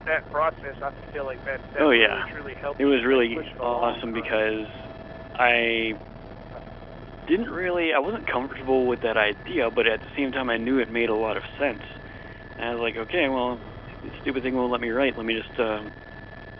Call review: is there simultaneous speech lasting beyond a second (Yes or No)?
Yes